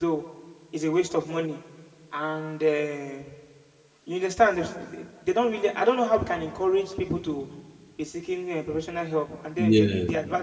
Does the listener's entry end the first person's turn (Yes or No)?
No